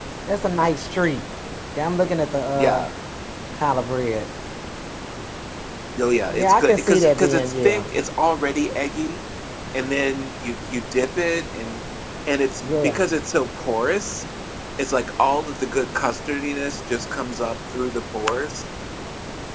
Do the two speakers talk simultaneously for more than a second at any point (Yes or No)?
Yes